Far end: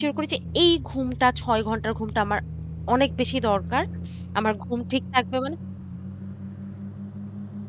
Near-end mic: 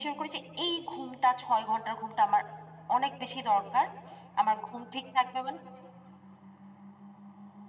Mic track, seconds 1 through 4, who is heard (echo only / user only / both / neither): echo only